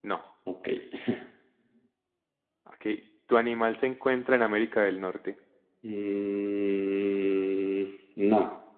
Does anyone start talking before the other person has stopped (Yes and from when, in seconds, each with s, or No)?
No